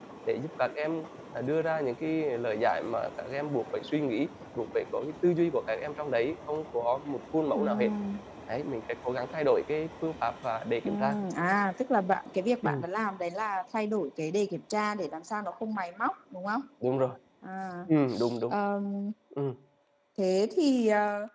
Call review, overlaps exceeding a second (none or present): none